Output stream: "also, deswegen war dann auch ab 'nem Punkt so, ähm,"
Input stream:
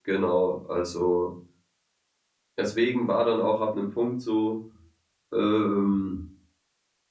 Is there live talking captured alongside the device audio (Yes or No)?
No